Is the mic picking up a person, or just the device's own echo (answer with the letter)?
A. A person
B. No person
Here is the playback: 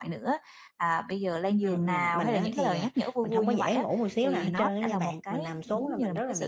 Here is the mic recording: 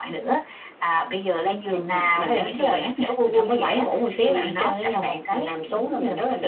B